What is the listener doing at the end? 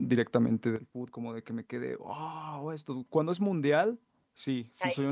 listening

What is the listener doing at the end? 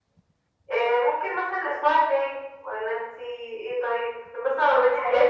listening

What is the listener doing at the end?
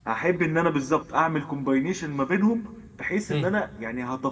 listening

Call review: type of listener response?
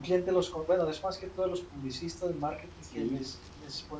listening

